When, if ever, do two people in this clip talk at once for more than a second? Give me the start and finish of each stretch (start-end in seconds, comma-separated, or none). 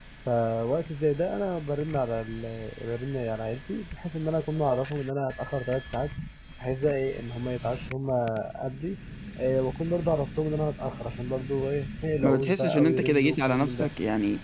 12.2-13.9